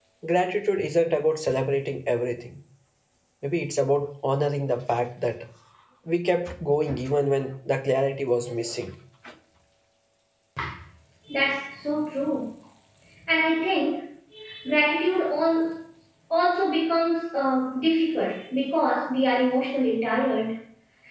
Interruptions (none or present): none